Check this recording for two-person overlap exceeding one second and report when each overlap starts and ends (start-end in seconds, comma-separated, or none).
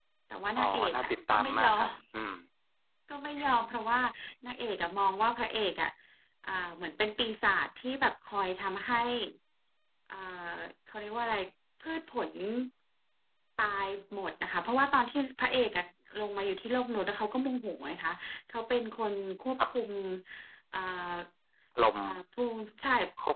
0.6-1.9